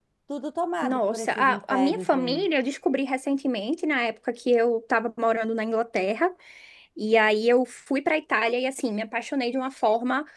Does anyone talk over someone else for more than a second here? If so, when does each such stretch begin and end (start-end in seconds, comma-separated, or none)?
0.8-2.4